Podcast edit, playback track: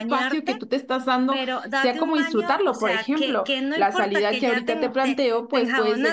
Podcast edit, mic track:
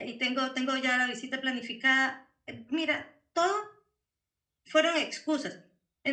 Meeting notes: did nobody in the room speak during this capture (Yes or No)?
No